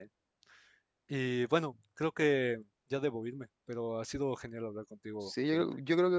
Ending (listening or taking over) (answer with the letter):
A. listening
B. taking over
B